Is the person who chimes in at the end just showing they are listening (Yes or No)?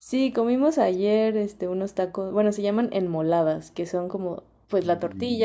Yes